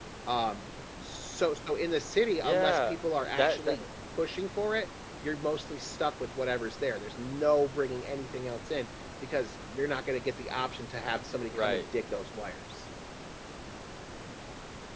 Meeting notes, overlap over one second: present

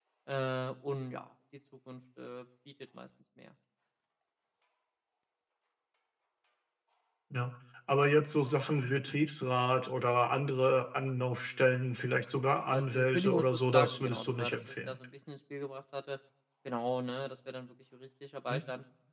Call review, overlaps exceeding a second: present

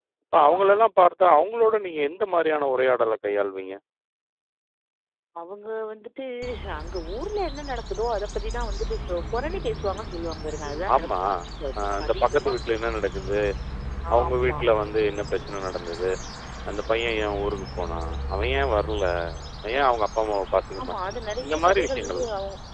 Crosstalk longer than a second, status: present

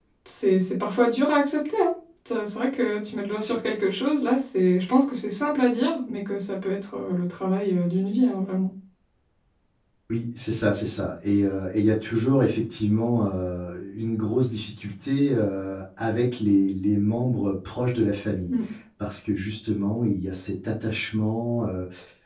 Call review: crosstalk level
none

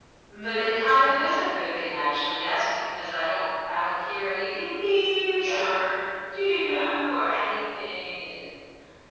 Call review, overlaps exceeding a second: none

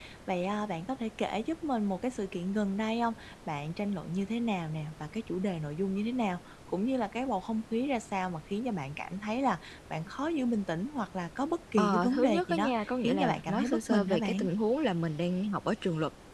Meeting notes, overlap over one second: present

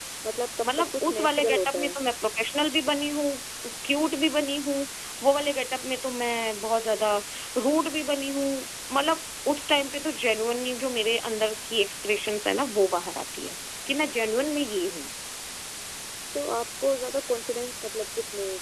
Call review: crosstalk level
present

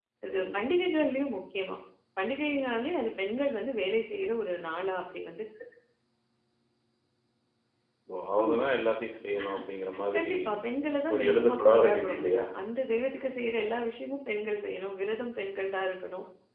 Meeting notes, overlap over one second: present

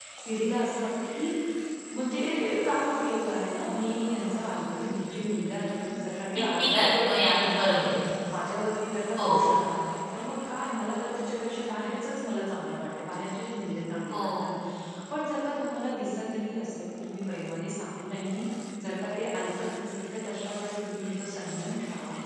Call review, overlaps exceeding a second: present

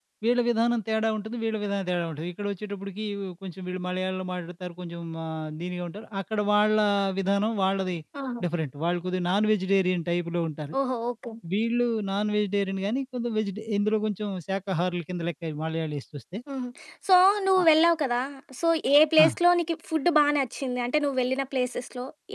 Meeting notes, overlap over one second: none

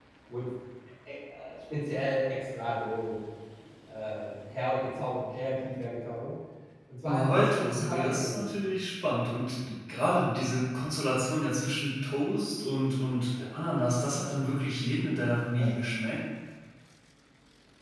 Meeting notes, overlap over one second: present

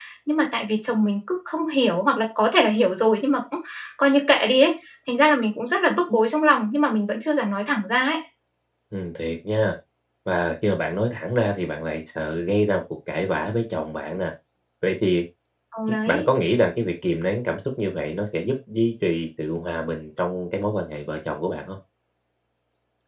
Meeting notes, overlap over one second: none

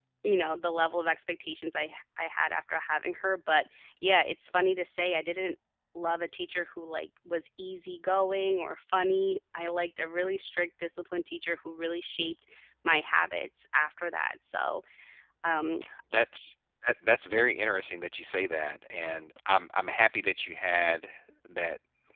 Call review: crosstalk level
none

